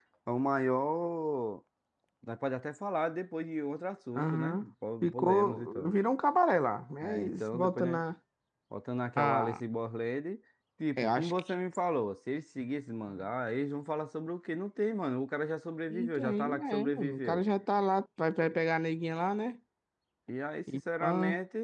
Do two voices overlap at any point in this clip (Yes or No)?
Yes